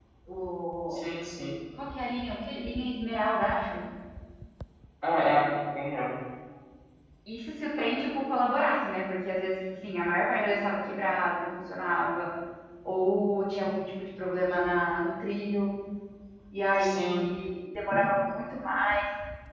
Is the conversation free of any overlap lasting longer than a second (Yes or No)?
Yes